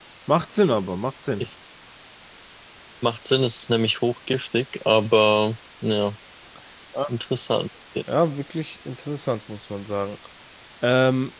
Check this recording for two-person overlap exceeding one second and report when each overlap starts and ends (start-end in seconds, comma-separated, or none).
none